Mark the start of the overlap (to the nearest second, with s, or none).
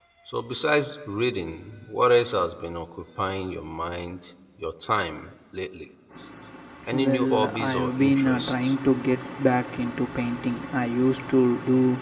7 s